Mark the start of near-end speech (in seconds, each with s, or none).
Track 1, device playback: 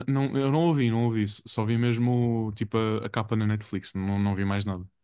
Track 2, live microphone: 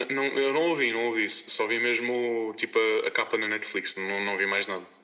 none